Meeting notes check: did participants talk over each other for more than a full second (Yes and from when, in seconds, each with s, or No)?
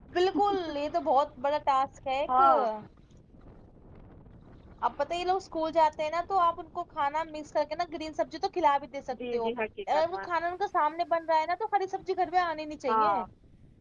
No